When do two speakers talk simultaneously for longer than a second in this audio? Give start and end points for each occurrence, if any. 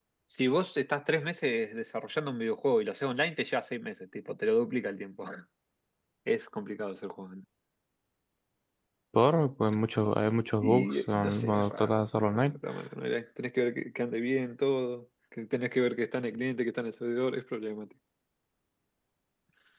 10.6-12.6

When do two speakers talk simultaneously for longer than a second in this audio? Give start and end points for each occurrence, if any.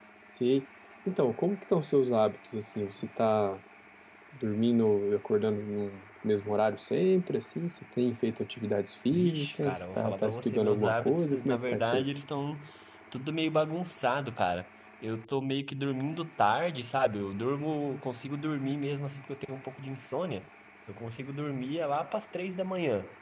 9.1-12.1

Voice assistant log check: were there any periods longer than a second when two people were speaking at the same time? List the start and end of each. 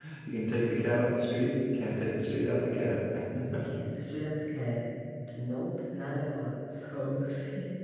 none

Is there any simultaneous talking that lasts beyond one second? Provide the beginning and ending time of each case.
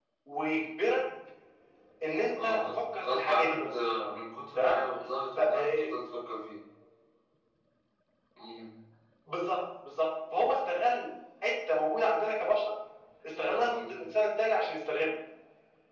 2.4-3.7

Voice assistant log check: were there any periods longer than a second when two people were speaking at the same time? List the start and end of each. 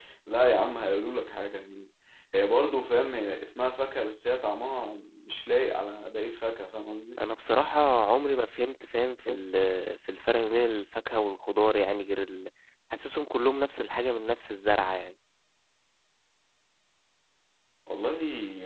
none

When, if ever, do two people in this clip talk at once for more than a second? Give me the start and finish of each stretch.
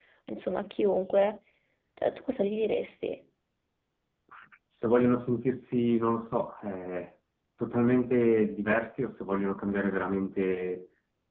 none

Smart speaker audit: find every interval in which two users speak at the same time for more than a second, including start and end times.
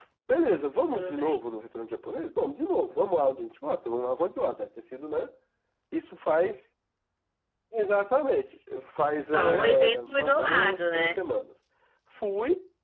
9.3-11.2

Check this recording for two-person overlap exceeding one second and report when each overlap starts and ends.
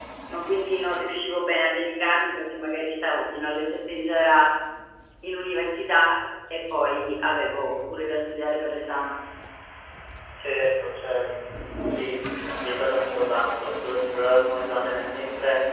none

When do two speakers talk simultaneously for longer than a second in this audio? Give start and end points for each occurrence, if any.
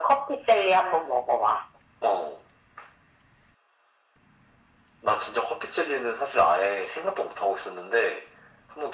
none

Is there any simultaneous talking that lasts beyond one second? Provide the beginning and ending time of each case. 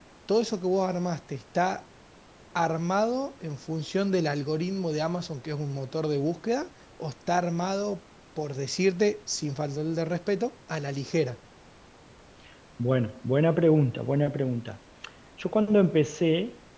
none

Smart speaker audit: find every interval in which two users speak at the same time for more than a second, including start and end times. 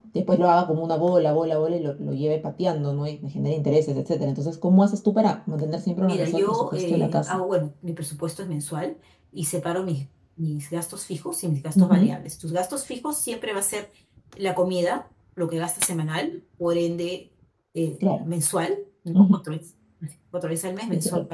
6.0-7.4

